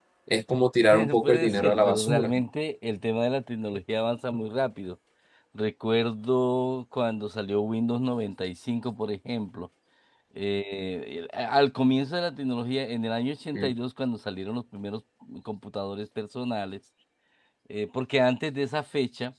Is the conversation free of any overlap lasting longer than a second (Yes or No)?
No